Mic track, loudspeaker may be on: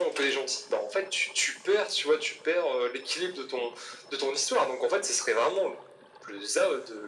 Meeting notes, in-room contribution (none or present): none